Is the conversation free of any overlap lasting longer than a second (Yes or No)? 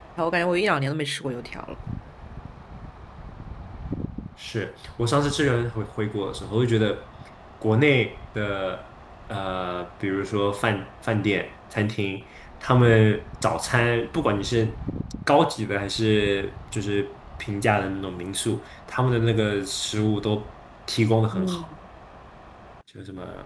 Yes